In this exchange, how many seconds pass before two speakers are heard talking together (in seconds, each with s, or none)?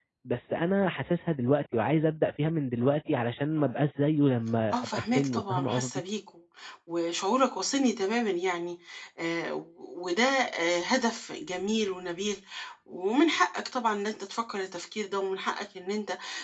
4.7 s